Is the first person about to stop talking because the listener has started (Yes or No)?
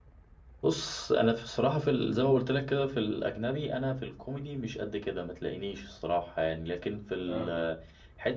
No